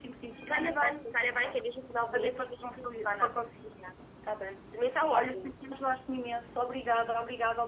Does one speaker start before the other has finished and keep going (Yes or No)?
Yes